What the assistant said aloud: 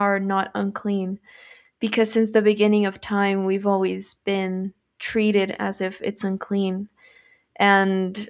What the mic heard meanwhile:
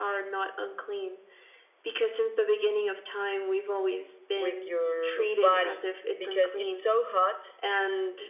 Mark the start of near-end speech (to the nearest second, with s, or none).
4 s